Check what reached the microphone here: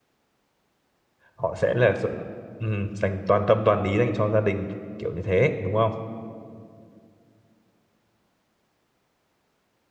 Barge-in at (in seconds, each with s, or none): 1.3 s